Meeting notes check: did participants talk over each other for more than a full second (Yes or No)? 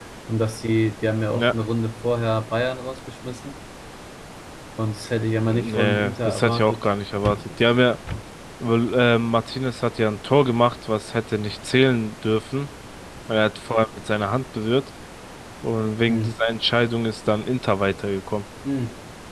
Yes